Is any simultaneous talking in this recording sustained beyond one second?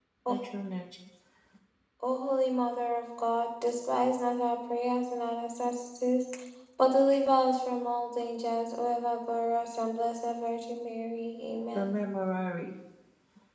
No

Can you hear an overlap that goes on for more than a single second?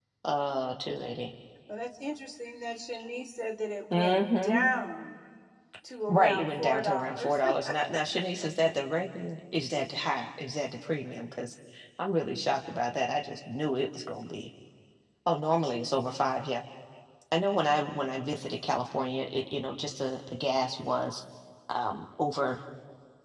Yes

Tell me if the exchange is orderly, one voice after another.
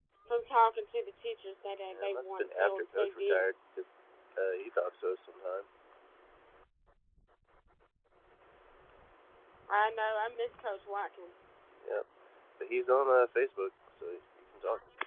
No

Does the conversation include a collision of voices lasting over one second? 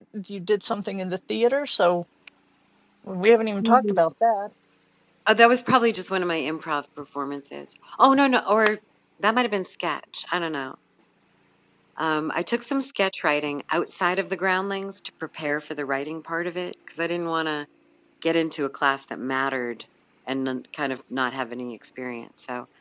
No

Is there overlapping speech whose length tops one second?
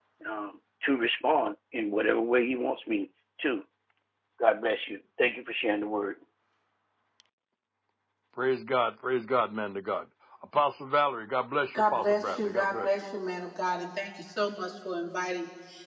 Yes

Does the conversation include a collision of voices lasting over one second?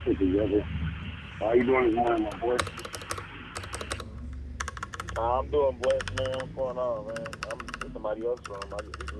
No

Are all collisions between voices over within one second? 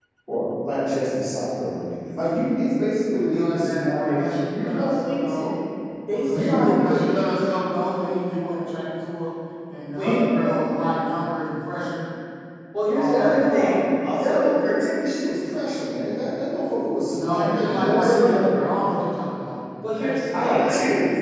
No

